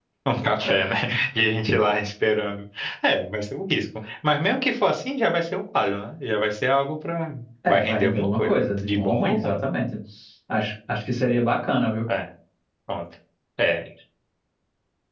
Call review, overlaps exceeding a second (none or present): present